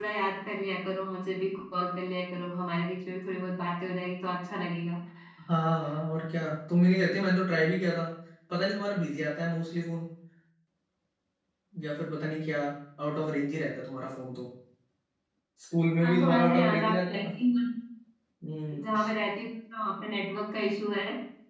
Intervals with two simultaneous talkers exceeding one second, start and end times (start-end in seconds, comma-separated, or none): 16.0-17.4